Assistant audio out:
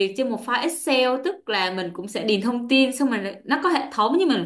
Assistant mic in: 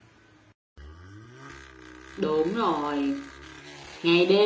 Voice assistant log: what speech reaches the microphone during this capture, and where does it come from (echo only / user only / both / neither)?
user only